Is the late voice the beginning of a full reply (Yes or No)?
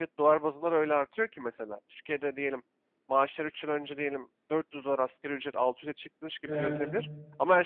No